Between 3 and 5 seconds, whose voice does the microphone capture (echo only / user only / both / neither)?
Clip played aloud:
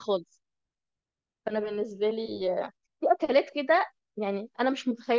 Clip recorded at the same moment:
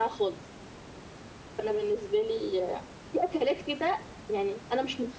echo only